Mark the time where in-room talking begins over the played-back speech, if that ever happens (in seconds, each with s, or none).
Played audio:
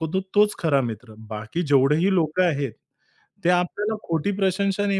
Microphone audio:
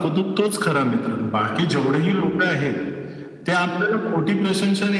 none